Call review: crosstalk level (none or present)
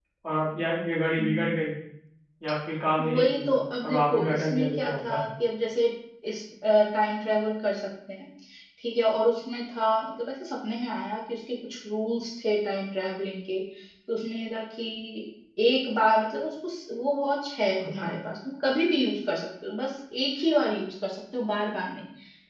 present